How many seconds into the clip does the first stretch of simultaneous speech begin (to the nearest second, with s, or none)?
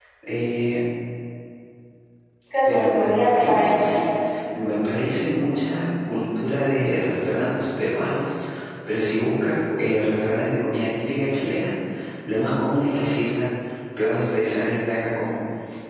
3 s